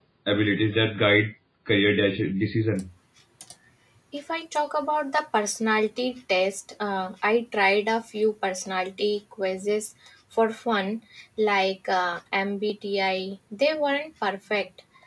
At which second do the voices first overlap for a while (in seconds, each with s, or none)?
none